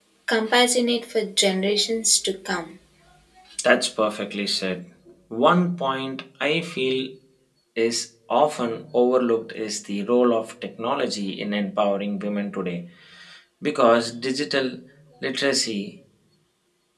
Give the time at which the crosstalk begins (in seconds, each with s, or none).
none